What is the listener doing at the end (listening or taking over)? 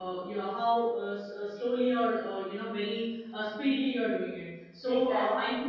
listening